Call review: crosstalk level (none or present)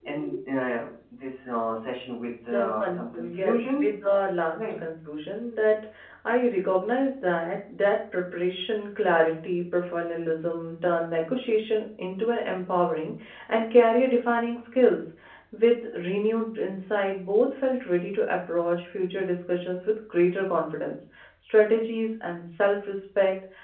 present